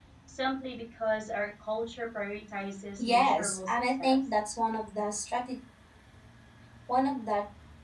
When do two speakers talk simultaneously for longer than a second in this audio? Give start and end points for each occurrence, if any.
3.0-4.2

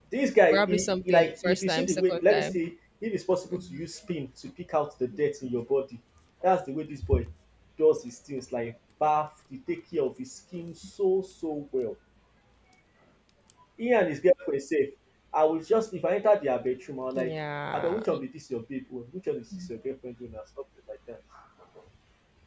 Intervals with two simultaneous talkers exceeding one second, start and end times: 0.5-2.6

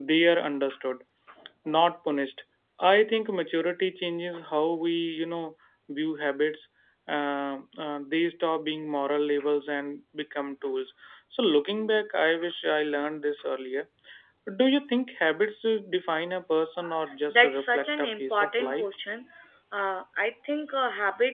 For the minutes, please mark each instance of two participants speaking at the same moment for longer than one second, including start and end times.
17.3-18.8

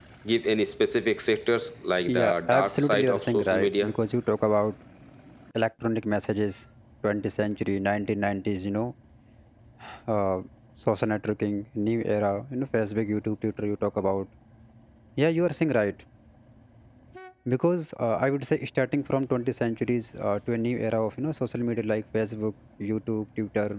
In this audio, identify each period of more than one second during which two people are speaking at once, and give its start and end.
2.1-3.9

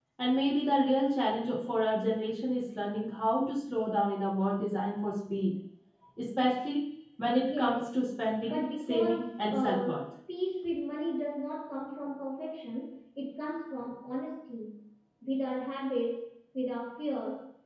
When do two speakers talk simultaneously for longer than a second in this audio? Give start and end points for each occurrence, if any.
8.4-10.0

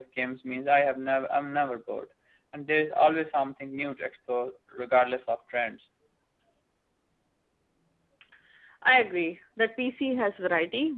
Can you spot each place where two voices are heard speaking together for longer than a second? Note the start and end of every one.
none

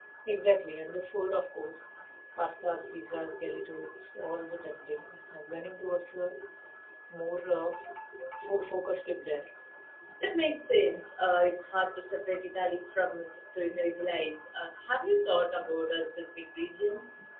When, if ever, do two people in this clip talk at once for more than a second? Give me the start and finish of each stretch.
none

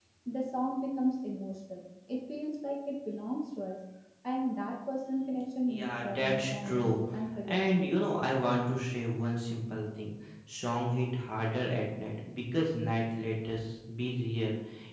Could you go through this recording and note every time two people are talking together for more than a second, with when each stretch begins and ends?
5.7-7.0

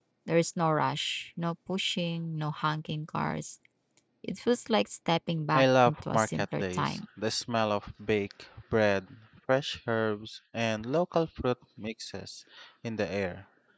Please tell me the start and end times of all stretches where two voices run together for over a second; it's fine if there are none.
5.5-7.0

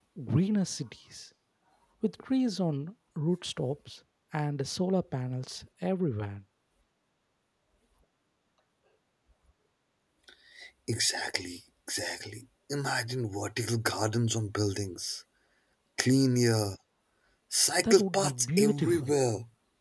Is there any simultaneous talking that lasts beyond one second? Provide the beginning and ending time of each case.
17.8-19.1

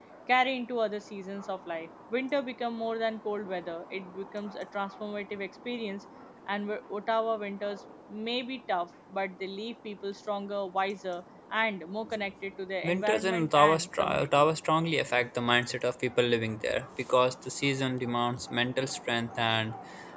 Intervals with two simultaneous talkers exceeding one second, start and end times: 12.8-14.5

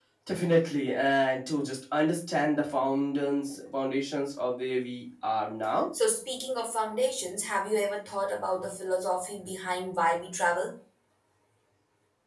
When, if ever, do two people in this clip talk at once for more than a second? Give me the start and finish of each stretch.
none

